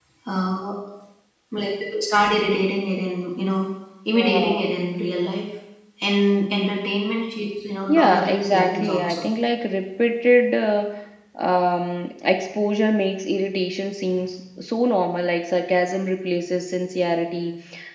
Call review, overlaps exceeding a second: present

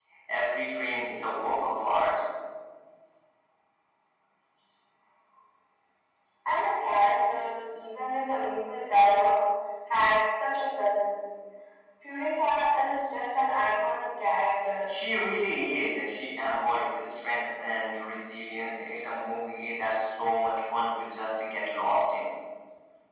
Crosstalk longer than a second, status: none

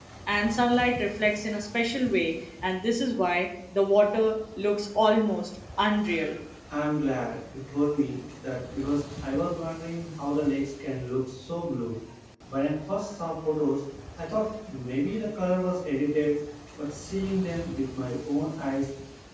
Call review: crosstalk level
none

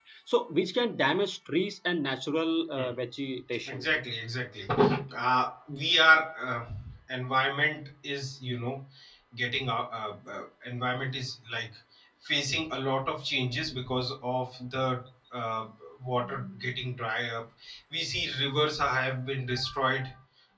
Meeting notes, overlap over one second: none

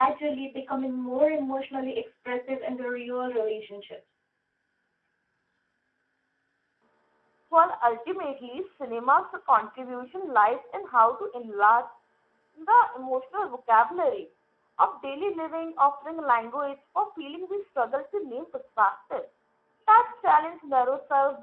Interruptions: none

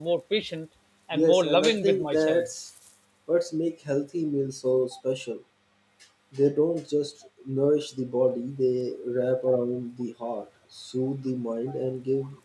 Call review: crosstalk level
present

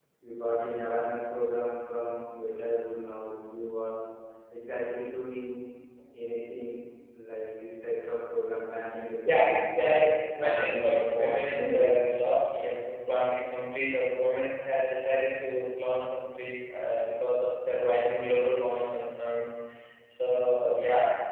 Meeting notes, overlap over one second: present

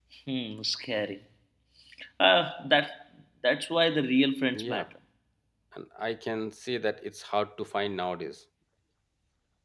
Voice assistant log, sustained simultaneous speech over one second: none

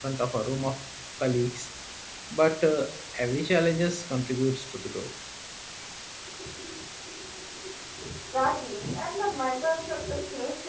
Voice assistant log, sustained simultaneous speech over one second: none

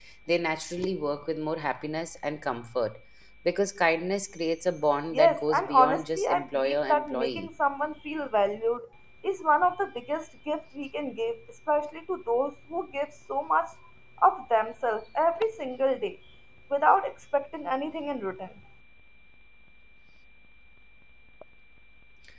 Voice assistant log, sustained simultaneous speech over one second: present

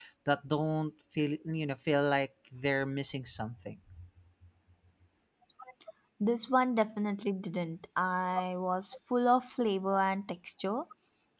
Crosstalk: none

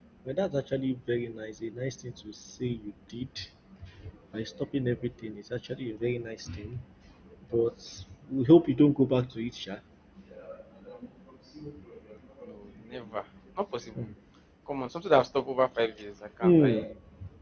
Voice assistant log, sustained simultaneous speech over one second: none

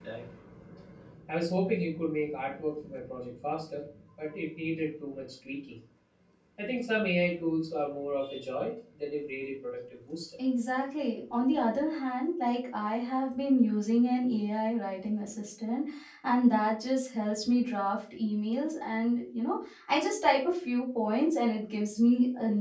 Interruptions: none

